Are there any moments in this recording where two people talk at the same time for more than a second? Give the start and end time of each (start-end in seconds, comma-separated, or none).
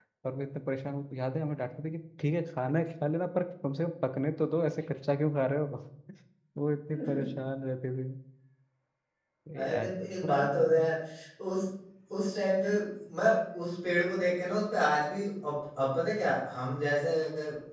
9.6-10.8